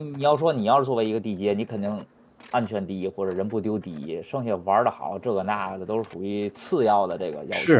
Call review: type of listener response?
taking over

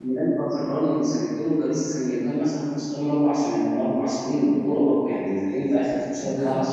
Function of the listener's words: taking over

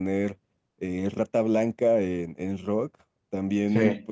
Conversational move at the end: listening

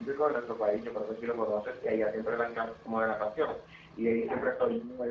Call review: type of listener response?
listening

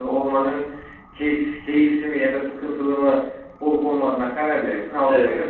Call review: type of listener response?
taking over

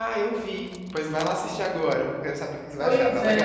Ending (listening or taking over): taking over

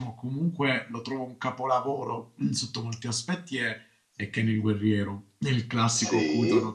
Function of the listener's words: taking over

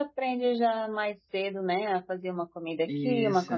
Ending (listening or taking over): listening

